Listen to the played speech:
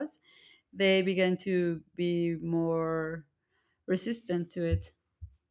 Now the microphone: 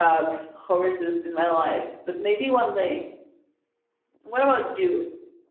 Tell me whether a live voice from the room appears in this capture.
Yes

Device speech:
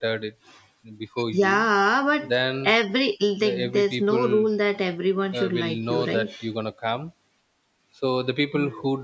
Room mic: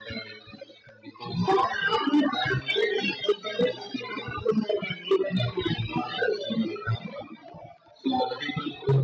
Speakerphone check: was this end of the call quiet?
Yes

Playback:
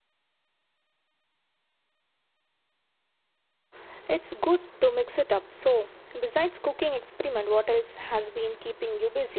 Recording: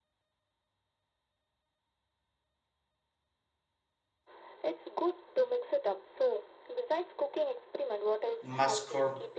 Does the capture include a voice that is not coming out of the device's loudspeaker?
Yes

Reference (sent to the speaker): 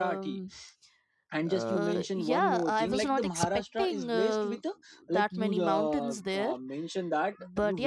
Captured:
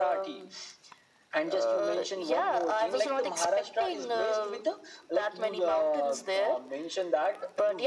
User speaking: No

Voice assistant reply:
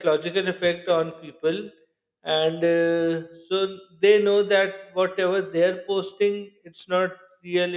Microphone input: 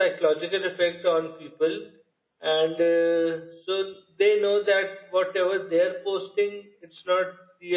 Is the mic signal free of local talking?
Yes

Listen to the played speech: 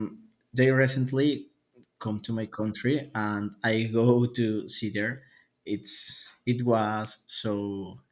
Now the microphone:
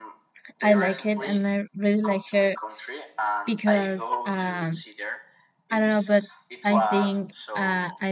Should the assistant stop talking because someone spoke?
Yes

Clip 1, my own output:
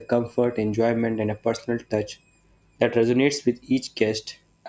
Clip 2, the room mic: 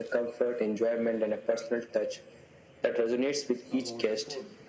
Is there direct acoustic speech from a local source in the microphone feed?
Yes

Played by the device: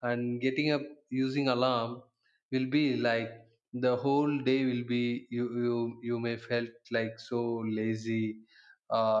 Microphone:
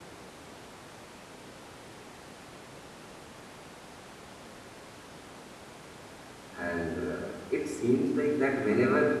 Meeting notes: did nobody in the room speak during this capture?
No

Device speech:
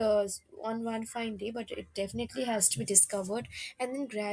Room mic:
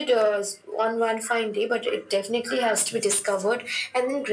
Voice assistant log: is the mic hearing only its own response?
Yes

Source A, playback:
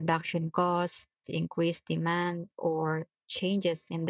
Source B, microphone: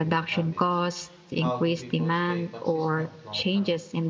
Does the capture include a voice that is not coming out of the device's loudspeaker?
Yes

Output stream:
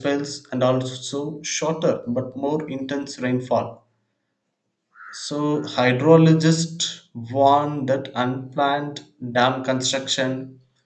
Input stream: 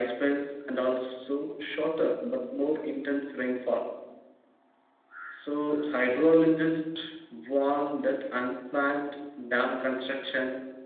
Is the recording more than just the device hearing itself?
No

